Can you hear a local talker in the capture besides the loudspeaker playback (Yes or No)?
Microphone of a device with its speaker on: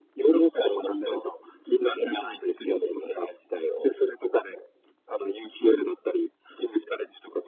No